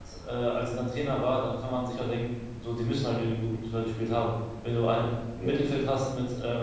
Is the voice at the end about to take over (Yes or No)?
No